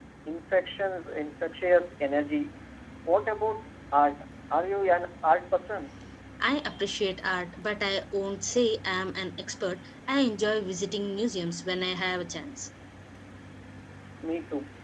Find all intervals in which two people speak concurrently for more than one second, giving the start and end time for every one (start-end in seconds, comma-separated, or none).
none